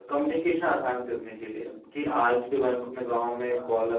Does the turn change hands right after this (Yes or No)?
No